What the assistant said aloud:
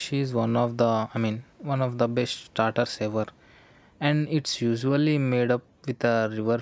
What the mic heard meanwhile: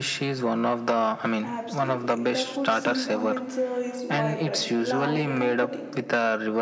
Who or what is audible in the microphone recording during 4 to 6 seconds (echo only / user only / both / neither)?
both